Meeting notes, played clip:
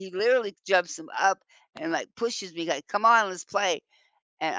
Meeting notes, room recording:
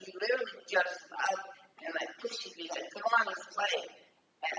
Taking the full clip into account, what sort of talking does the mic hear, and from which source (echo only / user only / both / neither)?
echo only